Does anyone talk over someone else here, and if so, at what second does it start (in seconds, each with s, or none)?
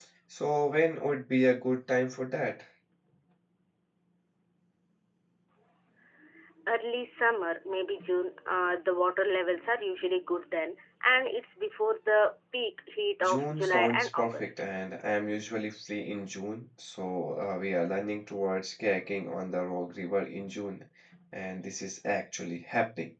13.2 s